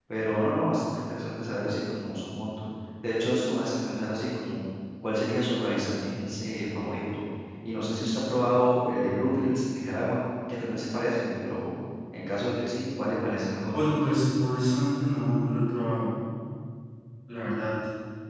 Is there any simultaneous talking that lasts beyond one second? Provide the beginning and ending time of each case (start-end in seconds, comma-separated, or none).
none